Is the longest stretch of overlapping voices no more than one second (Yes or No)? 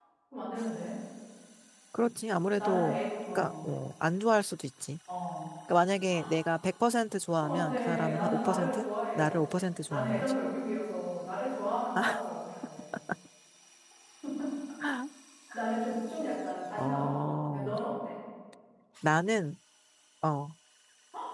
No